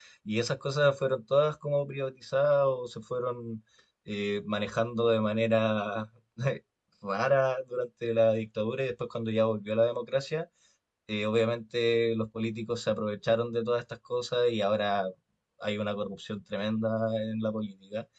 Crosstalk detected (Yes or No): No